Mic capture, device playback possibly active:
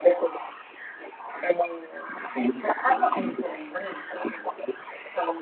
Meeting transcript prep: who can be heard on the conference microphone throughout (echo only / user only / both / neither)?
echo only